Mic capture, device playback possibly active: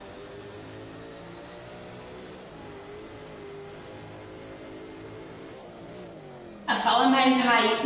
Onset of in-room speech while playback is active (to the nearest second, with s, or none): 7 s